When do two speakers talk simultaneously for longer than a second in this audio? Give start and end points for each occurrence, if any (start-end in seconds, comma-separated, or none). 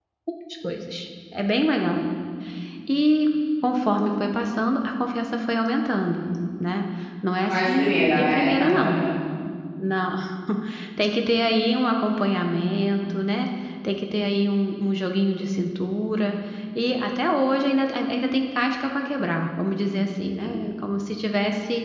7.4-8.9